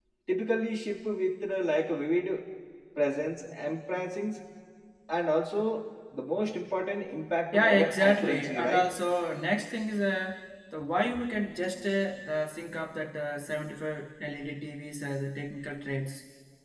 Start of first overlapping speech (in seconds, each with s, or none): 7.5 s